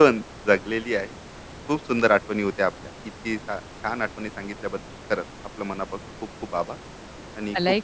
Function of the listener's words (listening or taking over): taking over